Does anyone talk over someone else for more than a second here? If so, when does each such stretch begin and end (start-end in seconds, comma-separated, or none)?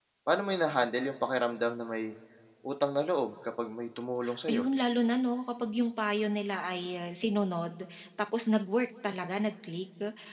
none